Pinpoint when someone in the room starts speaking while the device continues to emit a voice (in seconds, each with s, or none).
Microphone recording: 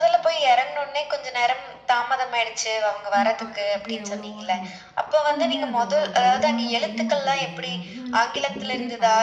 3.1 s